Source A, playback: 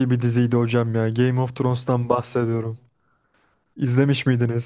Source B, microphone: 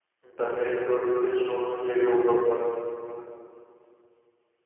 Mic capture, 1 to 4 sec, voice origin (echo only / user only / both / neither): user only